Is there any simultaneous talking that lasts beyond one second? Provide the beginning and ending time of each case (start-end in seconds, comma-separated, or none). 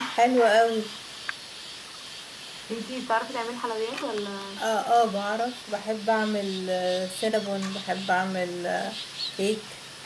none